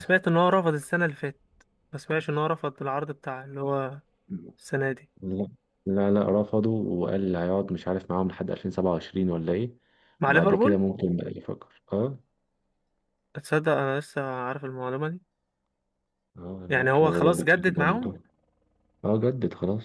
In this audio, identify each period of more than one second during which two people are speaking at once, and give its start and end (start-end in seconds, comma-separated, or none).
16.7-18.1